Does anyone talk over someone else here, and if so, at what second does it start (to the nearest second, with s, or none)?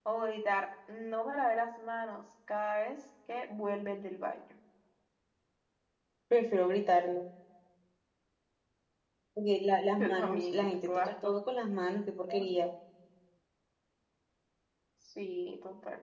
10 s